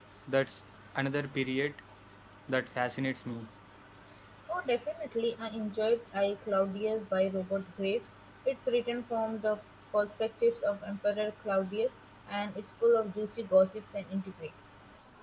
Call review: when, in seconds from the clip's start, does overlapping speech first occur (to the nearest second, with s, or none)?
none